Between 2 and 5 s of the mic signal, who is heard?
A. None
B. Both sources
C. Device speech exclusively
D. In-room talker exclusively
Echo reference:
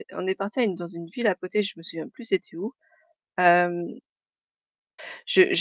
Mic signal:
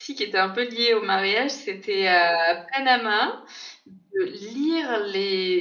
D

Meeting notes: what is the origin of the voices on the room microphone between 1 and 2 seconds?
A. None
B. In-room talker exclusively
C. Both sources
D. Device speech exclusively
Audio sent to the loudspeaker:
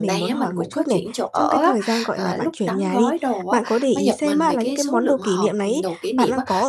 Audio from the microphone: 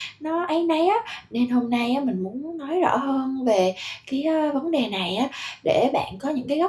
B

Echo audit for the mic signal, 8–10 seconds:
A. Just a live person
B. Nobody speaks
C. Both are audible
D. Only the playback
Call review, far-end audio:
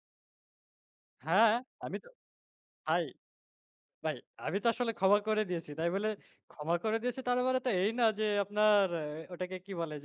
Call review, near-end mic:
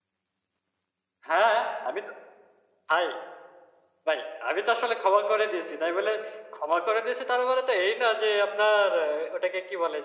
D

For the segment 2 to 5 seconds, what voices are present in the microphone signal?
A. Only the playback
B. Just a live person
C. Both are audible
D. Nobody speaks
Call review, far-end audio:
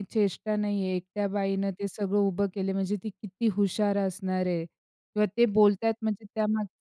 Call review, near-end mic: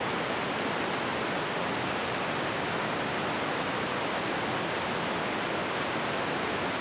D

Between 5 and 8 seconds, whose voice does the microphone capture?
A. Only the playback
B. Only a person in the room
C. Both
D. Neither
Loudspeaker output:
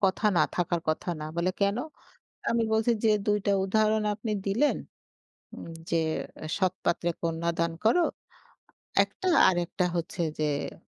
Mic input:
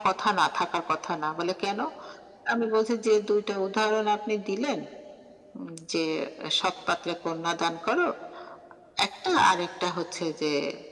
A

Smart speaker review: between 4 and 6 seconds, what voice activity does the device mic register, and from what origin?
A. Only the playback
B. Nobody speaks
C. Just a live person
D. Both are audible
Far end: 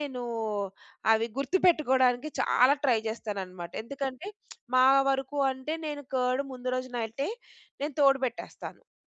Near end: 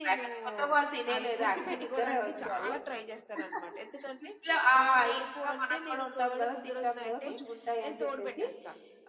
D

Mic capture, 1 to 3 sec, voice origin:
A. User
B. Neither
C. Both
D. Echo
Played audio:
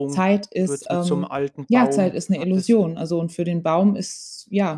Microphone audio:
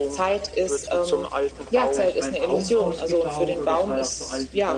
C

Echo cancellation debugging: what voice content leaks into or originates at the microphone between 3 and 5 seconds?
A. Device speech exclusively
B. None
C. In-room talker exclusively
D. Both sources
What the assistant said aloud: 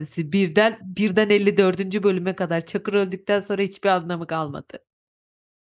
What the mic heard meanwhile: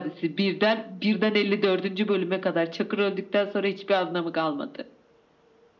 A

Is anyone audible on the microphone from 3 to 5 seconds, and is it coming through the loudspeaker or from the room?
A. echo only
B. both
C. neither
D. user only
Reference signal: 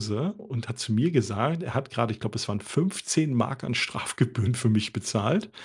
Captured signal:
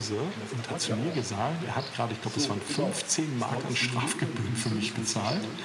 B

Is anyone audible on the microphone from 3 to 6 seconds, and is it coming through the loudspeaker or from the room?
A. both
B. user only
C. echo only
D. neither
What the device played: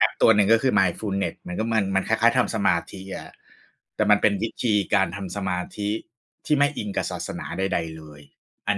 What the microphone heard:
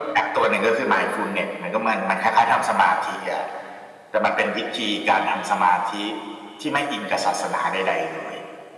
C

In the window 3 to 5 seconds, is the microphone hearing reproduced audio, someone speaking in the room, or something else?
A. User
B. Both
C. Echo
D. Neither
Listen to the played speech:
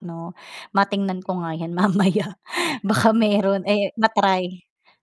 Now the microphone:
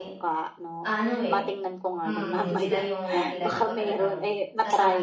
B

